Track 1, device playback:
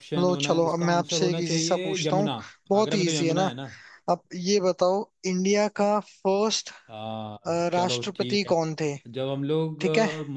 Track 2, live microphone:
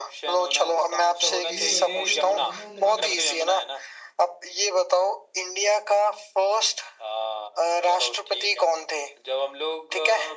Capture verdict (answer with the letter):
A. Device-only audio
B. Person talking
B